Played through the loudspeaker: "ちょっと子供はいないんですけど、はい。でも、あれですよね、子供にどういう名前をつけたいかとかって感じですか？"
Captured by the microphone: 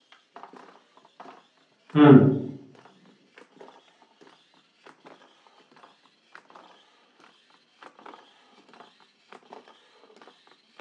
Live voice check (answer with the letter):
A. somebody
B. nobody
A